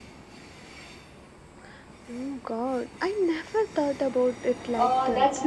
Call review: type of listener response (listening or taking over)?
taking over